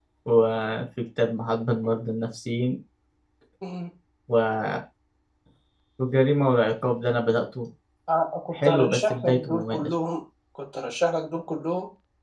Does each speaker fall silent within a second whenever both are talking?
No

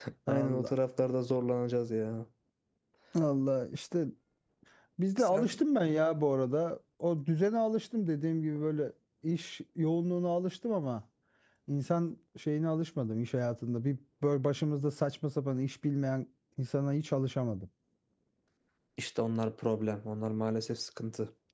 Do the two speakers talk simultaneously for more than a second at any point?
No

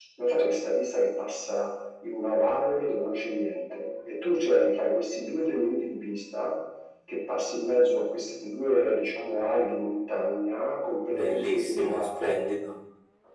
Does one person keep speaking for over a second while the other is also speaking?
Yes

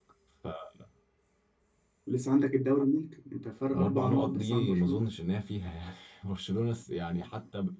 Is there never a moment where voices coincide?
No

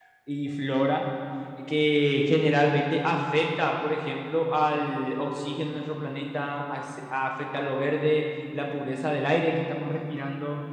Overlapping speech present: No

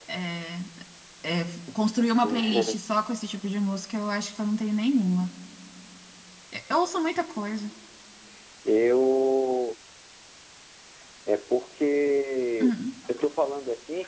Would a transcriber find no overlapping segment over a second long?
Yes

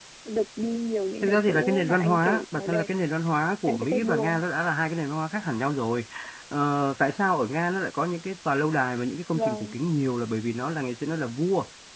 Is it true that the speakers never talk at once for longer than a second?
No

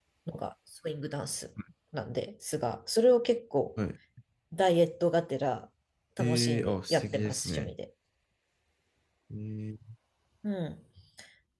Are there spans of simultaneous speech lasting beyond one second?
Yes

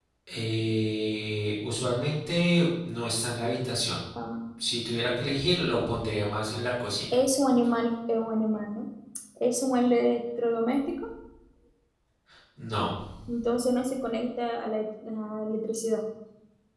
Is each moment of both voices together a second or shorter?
Yes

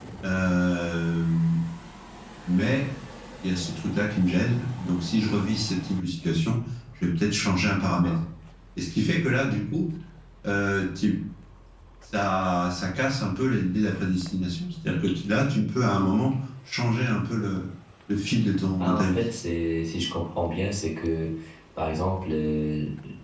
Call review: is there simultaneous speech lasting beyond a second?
No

